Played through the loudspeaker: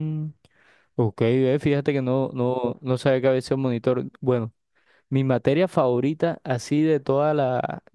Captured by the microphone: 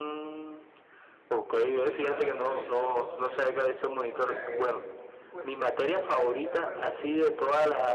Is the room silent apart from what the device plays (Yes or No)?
No